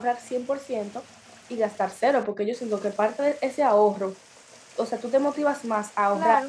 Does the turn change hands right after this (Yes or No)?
No